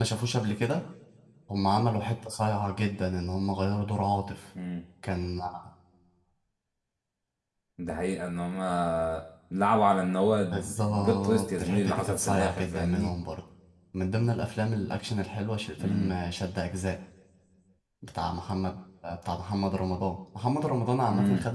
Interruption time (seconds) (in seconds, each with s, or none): 10.5 s